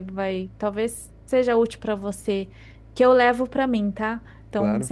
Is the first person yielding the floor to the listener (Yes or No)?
No